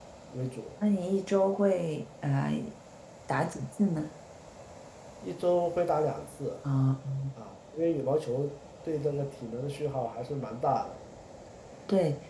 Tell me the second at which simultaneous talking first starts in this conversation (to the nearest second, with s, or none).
none